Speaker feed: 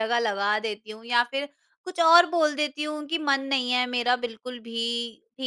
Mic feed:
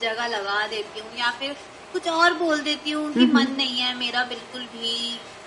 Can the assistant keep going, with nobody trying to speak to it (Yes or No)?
No